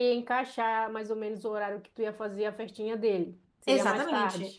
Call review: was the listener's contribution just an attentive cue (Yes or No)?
No